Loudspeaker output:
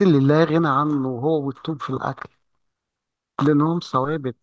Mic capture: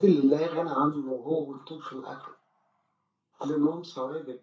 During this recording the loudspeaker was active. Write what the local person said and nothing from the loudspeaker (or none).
none